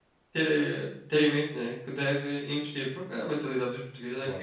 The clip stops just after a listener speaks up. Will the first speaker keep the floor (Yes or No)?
Yes